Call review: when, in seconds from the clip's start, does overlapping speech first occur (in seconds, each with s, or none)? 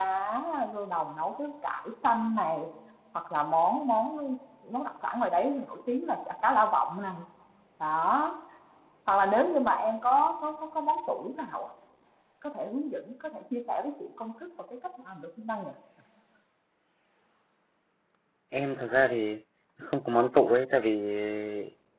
none